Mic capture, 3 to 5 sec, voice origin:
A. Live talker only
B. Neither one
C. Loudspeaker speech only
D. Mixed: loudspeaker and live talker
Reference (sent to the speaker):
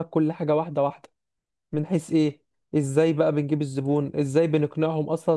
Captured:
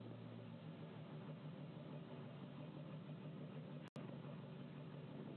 B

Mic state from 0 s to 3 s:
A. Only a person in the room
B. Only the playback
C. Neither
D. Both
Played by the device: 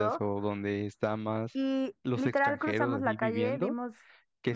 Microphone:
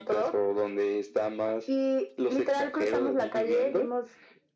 B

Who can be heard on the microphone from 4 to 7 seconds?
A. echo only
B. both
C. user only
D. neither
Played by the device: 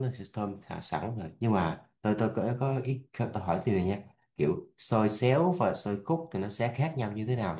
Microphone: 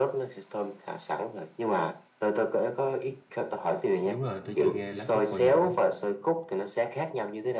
B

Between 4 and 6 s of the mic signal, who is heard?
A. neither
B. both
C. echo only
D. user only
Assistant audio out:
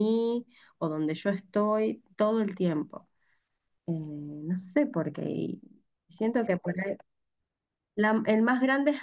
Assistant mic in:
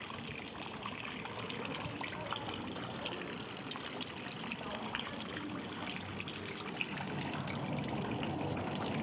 A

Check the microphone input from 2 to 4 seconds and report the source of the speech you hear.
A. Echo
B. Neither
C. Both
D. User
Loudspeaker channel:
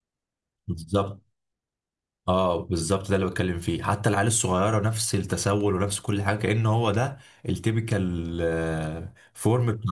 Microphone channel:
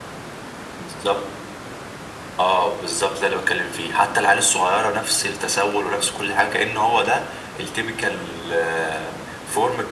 A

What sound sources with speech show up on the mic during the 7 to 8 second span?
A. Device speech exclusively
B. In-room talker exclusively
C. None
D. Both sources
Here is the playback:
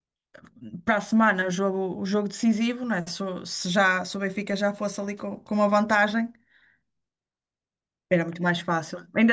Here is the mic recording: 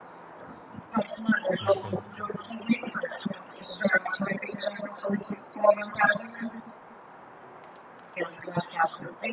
C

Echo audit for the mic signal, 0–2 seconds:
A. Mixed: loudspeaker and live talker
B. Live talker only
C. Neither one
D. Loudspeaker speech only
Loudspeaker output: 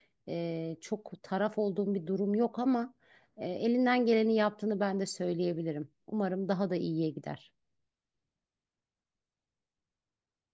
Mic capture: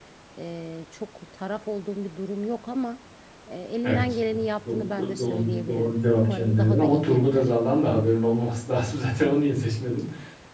D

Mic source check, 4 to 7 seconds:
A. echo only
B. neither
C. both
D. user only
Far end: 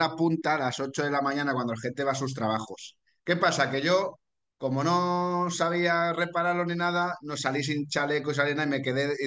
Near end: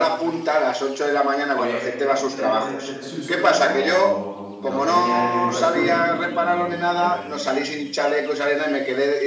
C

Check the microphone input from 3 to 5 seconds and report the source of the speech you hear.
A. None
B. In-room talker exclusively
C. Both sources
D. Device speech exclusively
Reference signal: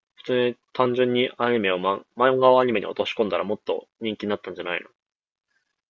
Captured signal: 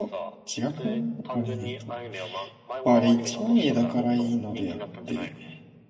C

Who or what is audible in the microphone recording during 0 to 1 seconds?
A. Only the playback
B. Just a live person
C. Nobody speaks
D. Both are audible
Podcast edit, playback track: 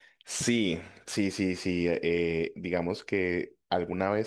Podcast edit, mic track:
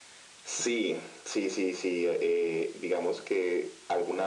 A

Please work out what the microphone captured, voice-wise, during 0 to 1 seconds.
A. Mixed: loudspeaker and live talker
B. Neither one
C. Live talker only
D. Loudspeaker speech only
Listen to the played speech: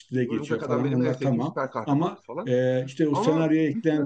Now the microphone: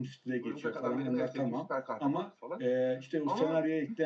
D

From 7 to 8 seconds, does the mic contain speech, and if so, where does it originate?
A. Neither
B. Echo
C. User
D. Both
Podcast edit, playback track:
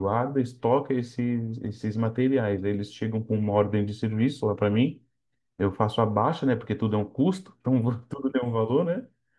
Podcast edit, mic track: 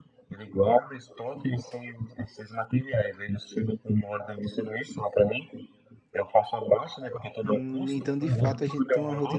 D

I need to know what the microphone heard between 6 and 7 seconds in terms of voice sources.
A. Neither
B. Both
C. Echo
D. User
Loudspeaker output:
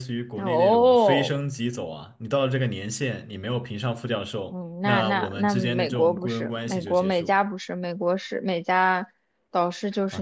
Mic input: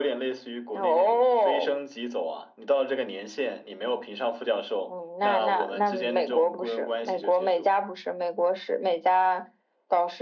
C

